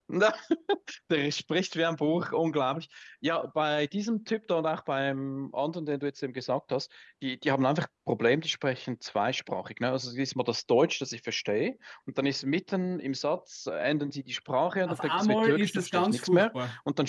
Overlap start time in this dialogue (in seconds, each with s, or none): 14.9 s